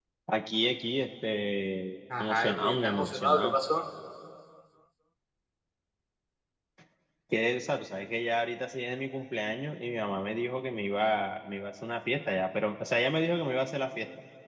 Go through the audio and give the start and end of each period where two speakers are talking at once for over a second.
2.2-3.6

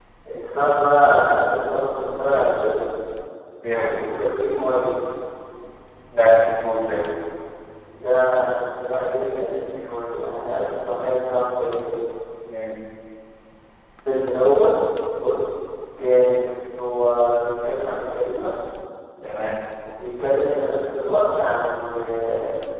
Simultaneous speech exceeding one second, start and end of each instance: none

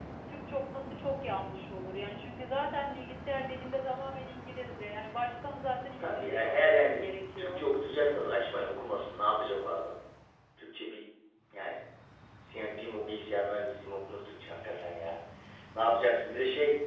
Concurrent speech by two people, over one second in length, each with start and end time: 6.0-7.6

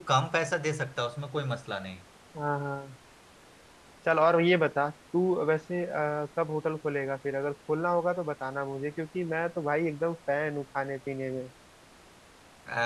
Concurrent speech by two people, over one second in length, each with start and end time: none

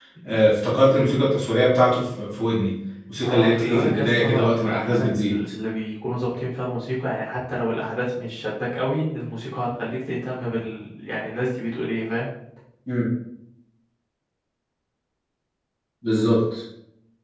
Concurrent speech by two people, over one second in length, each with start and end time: 3.2-5.3

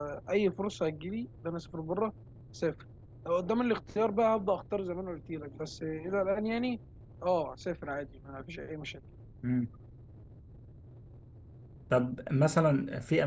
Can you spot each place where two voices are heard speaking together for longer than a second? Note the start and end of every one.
none

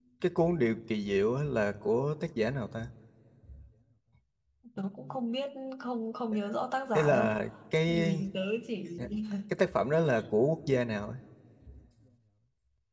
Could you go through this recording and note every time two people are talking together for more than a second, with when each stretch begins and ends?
none

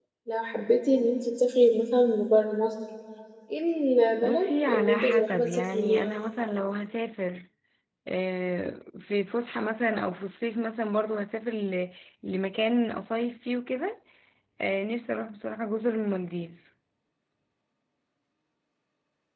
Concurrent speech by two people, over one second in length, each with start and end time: 4.2-6.1

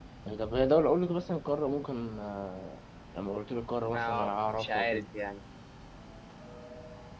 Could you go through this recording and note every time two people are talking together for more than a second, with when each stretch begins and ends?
3.8-5.0

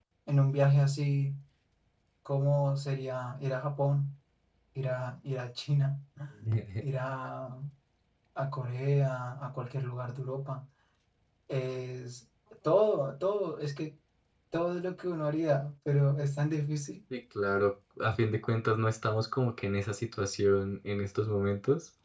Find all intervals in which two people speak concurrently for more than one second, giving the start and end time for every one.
none

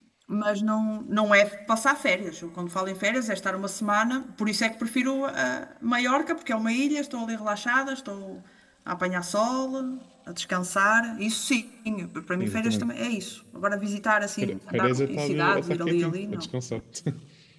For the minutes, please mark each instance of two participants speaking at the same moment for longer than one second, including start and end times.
14.4-16.5

